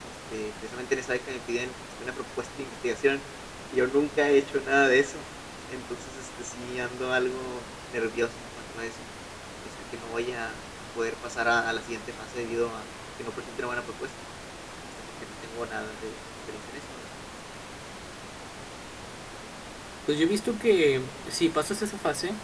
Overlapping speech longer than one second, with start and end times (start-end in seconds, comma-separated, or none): none